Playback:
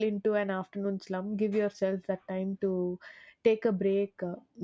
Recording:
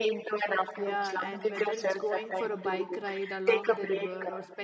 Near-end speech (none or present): present